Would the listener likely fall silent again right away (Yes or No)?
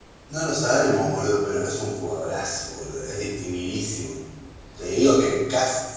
Yes